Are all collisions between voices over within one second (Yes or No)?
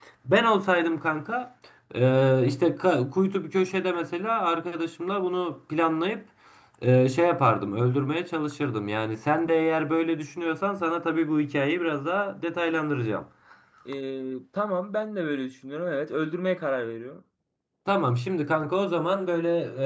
Yes